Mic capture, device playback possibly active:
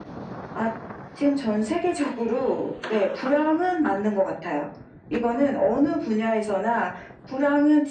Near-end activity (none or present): none